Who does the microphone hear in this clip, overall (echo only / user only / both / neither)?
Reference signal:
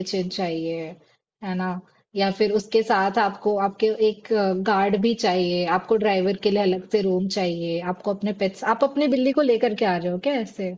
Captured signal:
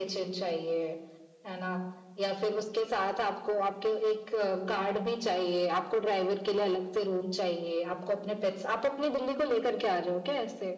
echo only